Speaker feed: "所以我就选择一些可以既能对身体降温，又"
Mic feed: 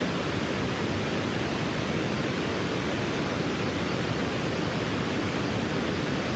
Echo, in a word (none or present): none